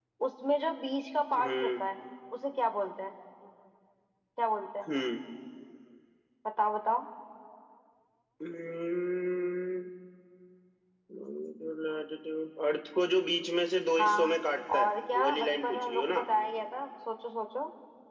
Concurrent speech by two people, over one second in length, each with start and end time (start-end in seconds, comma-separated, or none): 14.8-16.2